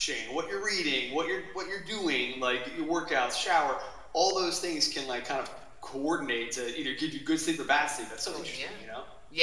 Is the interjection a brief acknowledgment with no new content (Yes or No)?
No